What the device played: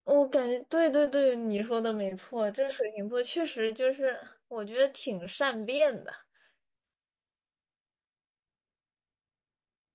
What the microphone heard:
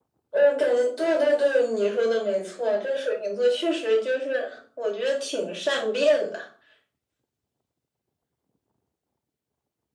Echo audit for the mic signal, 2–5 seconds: echo only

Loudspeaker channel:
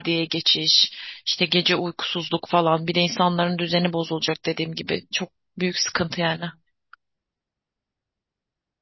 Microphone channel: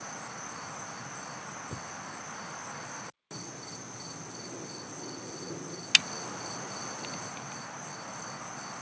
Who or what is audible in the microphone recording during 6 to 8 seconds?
neither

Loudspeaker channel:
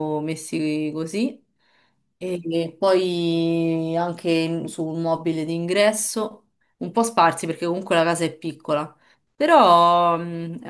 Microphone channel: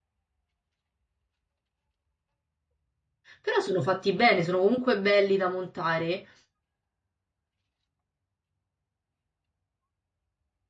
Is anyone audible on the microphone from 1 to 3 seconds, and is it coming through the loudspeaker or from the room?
neither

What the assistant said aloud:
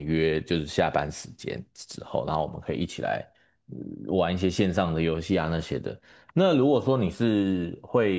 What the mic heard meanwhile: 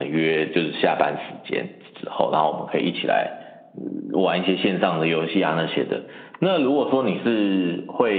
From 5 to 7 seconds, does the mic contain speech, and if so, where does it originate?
echo only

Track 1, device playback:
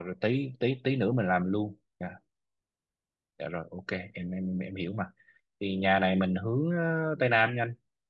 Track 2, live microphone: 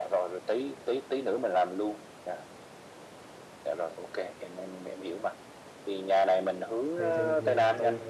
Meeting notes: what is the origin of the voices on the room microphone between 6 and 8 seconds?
both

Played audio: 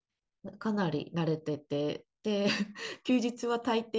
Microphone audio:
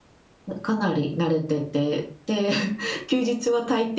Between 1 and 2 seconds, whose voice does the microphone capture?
echo only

